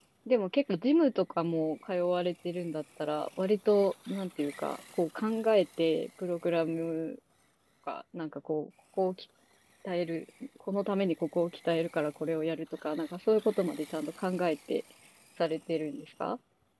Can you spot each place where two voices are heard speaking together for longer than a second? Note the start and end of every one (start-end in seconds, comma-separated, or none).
none